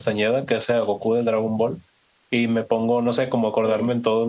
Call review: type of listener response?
listening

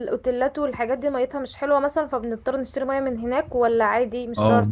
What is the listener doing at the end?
taking over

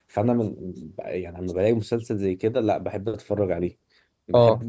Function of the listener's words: listening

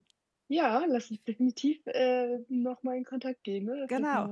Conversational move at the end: taking over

